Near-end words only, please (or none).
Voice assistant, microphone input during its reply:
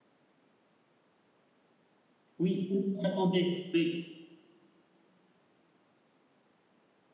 oui, tout le monde s'attendait. Oui.